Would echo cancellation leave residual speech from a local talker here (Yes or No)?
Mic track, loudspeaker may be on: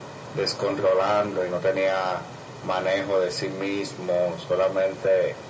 No